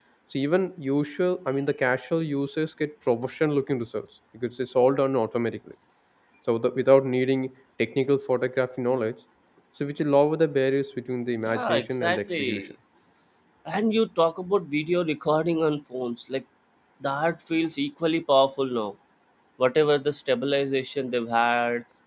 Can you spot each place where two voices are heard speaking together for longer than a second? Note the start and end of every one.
11.4-12.7

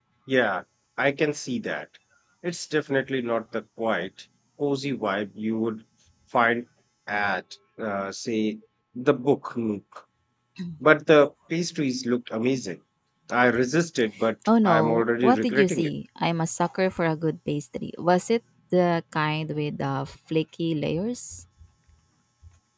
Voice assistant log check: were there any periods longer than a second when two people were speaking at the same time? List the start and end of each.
14.7-15.9

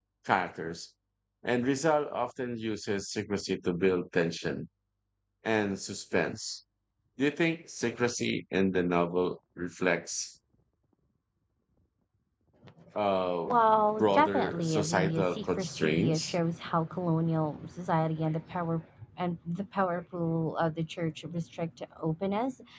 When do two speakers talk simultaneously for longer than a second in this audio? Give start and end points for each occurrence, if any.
14.0-16.4

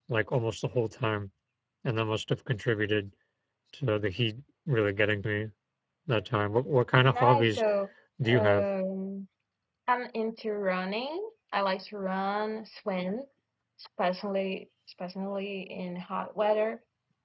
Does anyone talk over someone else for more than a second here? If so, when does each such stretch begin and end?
none

